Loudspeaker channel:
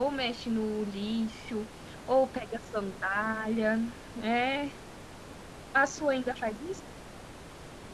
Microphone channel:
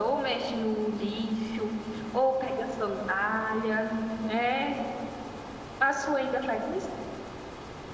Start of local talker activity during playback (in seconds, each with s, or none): none